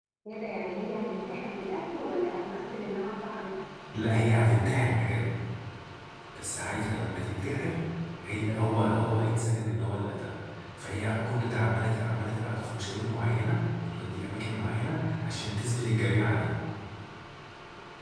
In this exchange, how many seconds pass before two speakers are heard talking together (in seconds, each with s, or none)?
none